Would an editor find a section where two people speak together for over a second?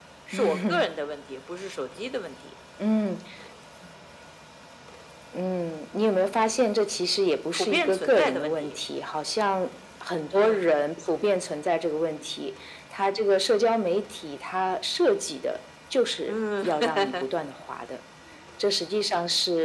Yes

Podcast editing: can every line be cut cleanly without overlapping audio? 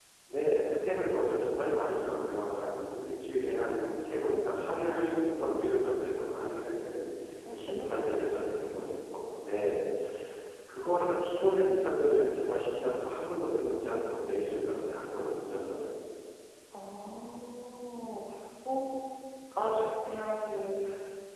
No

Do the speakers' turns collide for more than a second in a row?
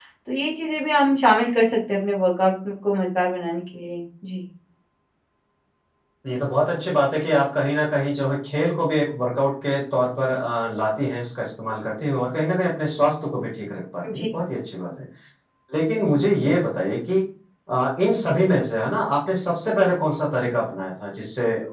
No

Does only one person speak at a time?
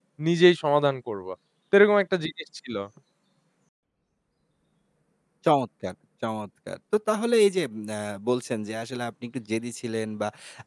Yes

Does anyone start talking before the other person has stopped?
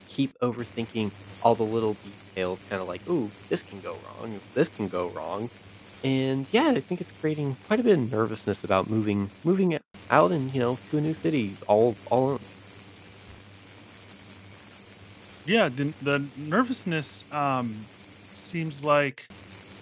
No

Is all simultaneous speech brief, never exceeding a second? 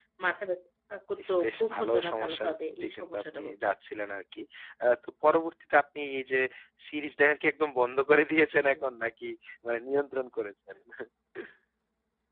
No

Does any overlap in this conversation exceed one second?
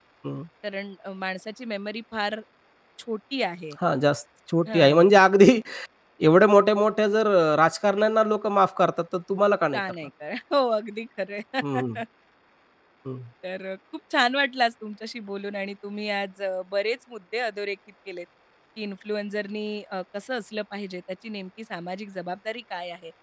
No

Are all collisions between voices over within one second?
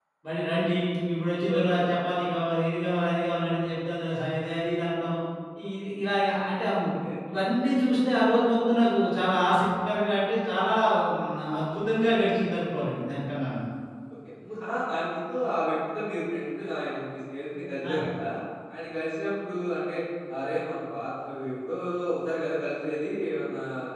Yes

